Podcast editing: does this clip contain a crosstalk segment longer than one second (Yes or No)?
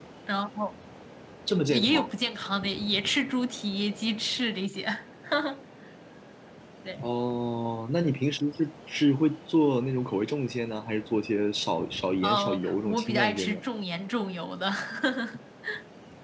Yes